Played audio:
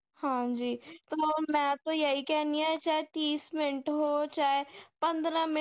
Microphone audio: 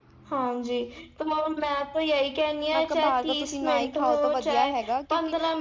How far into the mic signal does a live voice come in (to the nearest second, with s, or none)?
3 s